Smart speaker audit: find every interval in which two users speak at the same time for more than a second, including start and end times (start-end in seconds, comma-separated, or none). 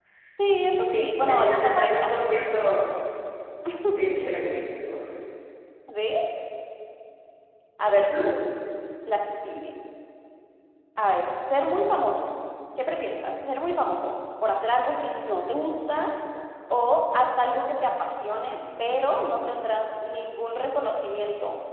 0.8-2.3